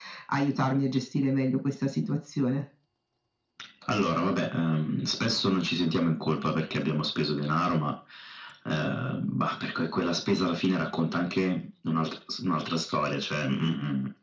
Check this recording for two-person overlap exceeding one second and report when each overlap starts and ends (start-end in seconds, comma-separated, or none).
none